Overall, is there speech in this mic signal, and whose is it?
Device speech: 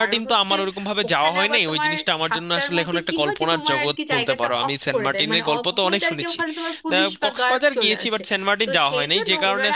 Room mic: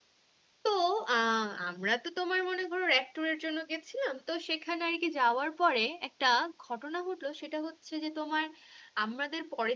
user only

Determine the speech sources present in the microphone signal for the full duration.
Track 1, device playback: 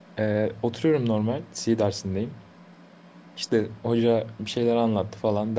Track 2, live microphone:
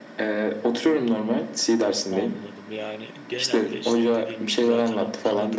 both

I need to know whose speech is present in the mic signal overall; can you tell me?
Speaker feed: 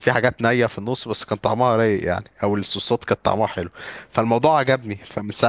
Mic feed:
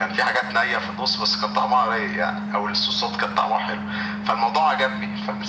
echo only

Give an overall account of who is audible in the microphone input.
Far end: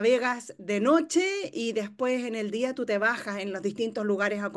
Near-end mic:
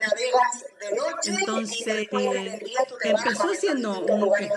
both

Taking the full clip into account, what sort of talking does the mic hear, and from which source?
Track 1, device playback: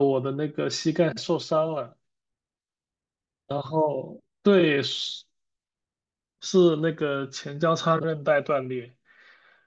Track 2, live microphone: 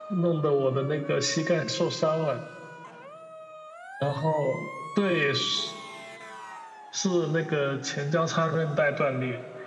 echo only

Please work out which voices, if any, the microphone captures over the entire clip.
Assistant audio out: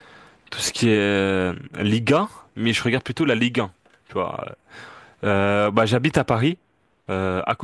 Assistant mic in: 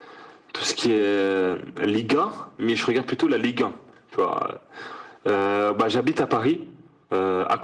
echo only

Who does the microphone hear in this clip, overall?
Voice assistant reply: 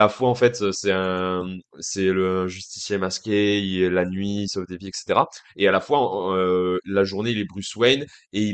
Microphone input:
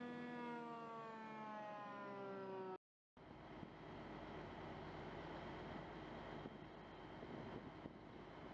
neither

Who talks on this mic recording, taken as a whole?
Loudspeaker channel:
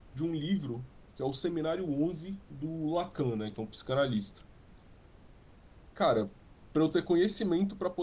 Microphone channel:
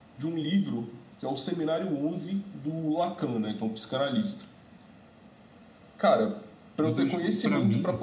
both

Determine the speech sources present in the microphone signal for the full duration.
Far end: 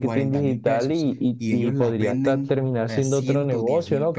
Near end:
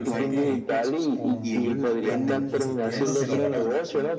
both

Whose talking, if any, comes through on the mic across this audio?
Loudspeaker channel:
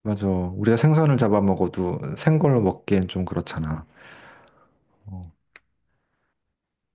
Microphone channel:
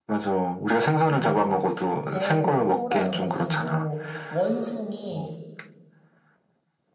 both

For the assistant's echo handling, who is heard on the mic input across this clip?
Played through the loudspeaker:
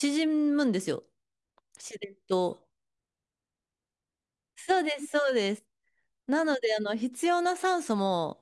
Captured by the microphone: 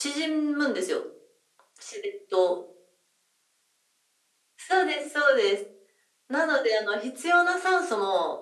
echo only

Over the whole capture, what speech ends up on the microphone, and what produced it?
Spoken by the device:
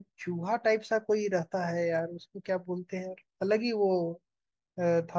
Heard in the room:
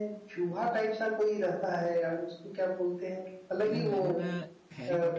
both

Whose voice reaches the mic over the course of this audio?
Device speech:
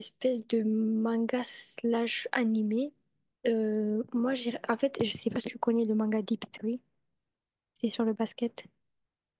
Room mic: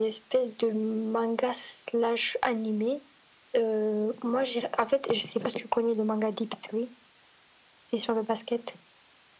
echo only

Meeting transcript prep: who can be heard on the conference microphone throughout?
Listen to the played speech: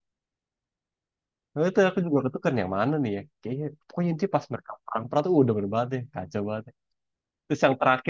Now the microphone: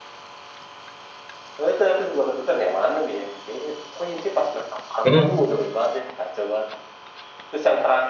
both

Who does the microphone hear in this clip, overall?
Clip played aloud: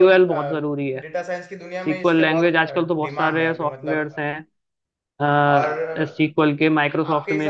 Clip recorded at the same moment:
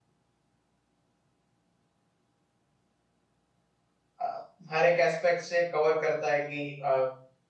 user only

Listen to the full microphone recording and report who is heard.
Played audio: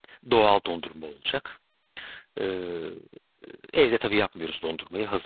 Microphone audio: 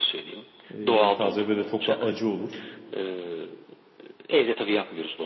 both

